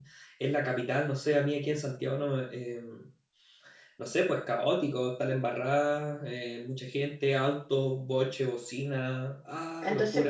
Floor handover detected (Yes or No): Yes